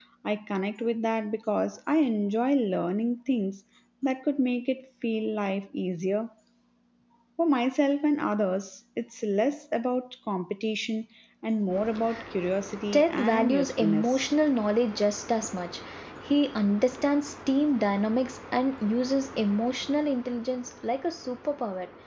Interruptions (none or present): present